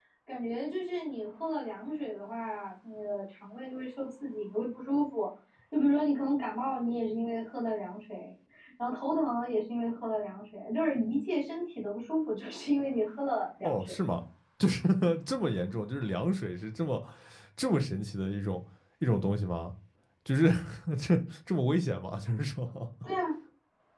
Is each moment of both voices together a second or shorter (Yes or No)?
Yes